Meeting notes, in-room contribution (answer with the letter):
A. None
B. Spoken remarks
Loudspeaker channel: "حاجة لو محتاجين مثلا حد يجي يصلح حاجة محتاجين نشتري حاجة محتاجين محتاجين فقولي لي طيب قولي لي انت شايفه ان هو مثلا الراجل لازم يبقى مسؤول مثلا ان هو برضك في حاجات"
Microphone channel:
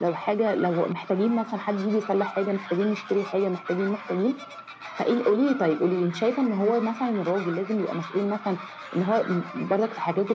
A